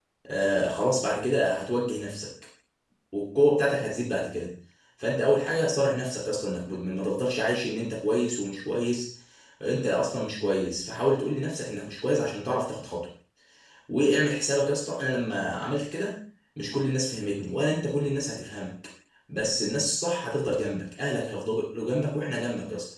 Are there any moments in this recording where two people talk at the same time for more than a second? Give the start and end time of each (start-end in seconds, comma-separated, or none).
none